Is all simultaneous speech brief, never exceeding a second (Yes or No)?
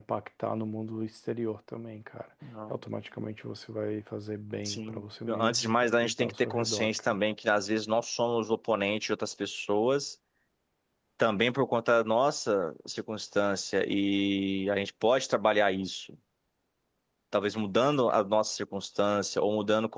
No